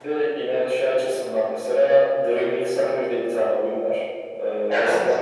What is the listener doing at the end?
listening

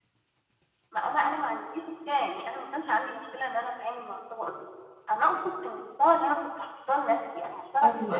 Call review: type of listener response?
listening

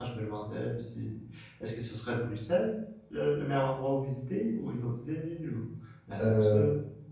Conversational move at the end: taking over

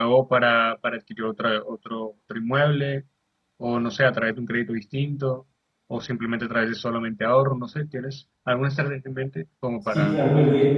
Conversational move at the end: taking over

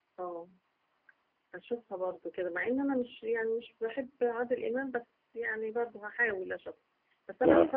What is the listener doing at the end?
listening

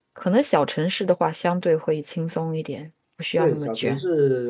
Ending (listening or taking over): taking over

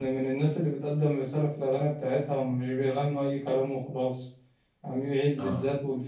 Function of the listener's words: listening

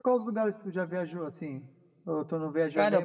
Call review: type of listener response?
taking over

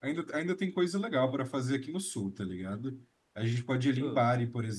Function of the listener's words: listening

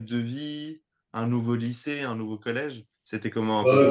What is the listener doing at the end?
taking over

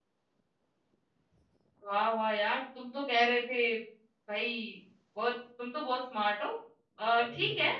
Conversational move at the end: listening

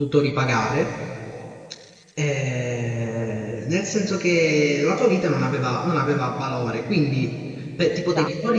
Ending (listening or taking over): listening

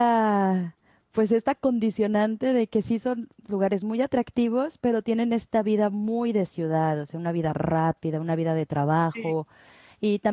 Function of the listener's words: listening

